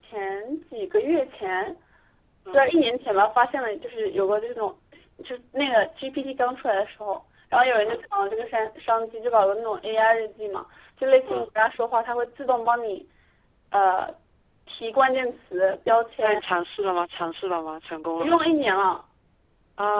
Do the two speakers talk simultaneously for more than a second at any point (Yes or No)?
No